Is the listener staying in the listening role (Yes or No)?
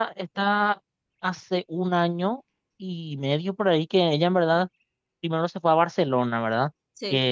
Yes